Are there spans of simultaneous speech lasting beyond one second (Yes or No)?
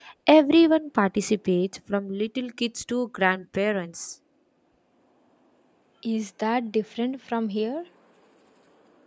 No